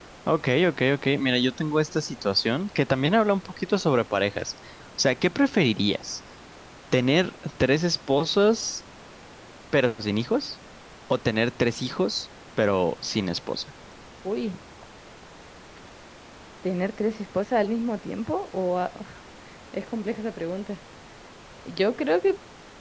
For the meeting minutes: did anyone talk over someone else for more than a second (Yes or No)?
No